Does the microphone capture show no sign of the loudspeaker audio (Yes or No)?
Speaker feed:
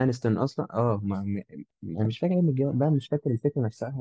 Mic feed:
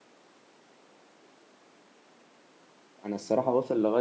Yes